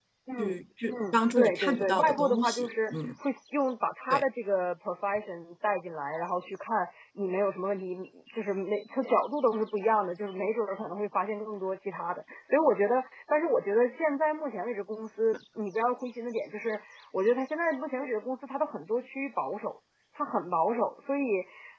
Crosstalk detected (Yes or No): Yes